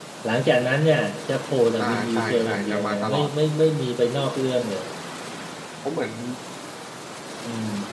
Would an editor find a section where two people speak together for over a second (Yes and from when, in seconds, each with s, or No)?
Yes, from 1.8 s